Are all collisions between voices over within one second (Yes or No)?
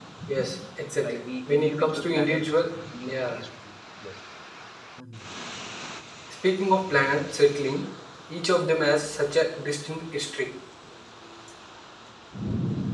No